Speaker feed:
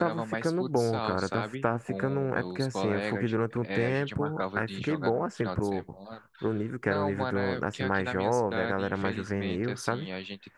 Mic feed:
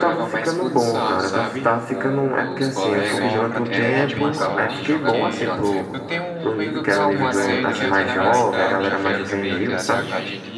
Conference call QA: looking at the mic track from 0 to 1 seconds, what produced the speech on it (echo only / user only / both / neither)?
echo only